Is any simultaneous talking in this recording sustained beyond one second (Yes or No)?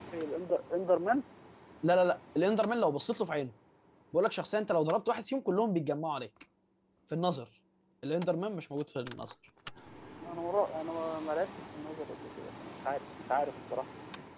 No